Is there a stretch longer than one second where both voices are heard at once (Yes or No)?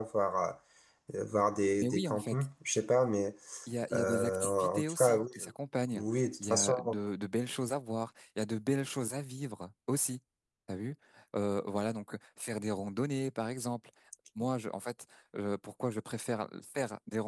Yes